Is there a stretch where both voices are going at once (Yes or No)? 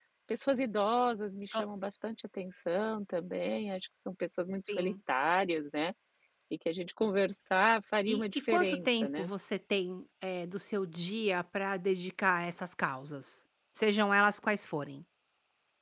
Yes